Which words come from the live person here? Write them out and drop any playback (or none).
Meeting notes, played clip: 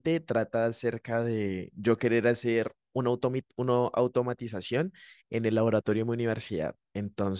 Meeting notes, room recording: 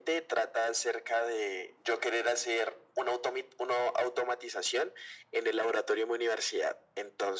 none